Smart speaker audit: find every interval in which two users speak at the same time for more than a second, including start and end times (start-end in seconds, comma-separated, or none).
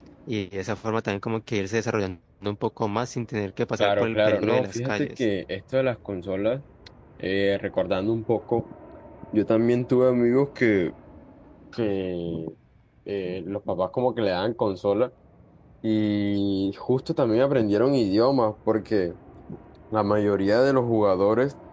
3.8-5.2